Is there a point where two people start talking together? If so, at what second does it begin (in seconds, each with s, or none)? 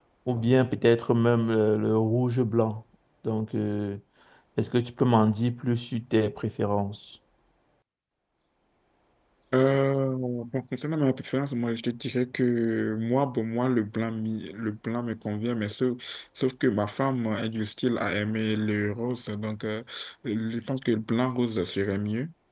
none